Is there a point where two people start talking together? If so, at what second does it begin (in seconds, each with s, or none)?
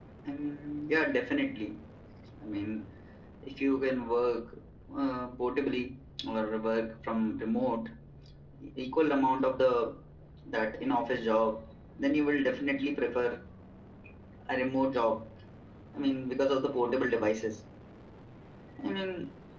none